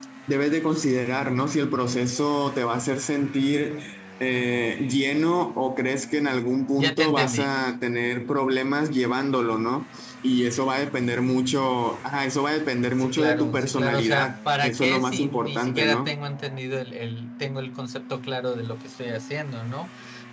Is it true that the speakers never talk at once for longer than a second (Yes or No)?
No